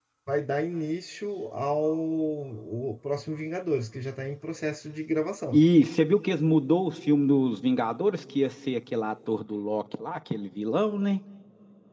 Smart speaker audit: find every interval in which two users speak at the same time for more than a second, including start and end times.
none

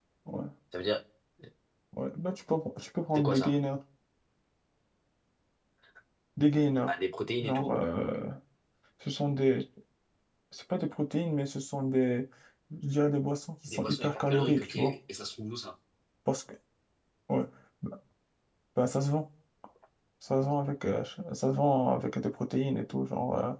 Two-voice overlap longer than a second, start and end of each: 13.7-14.9

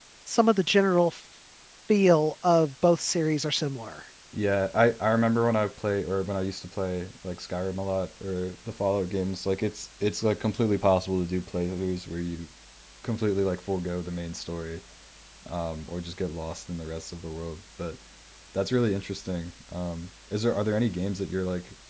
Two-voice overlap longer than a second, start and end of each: none

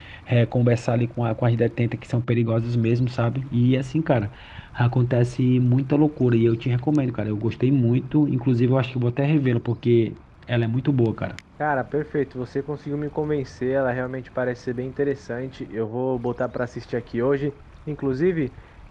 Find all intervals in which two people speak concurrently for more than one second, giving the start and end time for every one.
none

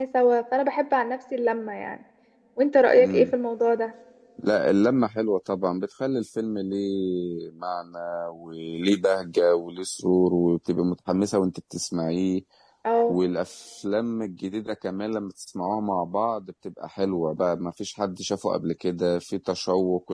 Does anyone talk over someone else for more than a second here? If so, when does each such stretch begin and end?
none

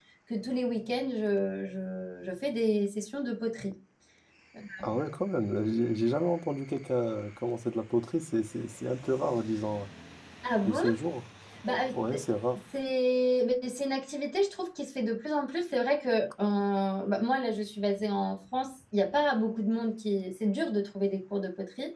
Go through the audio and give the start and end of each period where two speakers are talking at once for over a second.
none

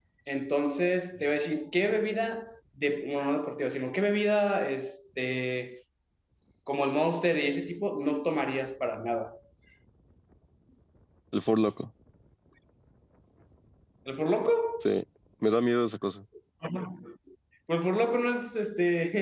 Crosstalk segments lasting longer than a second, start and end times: none

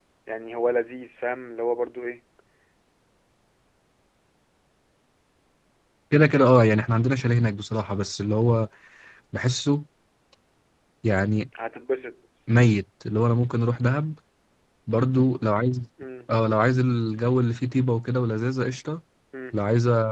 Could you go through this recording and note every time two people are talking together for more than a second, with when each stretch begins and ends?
none

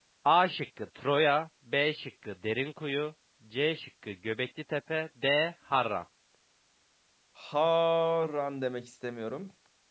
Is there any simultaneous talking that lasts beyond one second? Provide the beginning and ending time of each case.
none

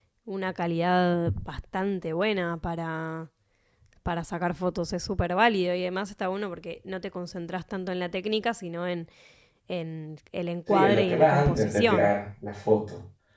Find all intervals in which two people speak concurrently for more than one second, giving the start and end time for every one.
10.7-12.1

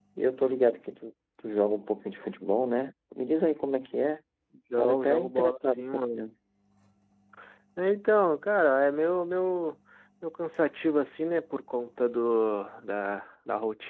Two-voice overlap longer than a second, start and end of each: 4.8-6.3

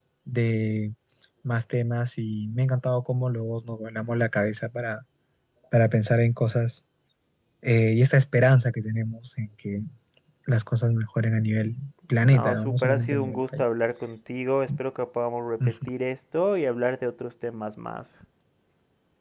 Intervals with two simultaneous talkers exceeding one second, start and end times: 12.2-13.6

